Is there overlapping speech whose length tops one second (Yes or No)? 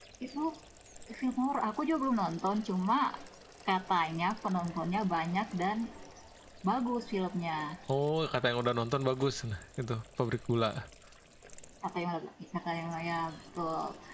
No